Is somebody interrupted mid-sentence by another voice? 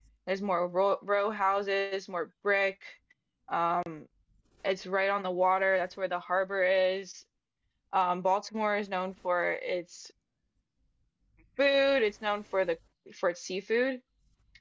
No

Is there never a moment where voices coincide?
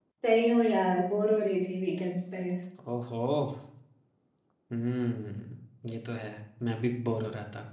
Yes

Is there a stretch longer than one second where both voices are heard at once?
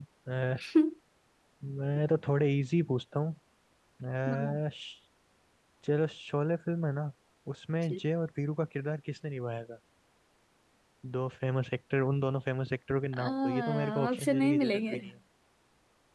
Yes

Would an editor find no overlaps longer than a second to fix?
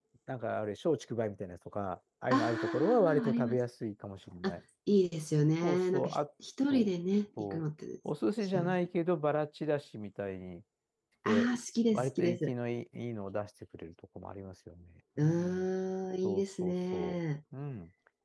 No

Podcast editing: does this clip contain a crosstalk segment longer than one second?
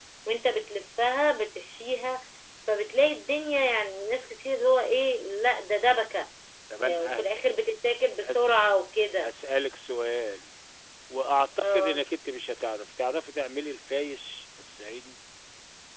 No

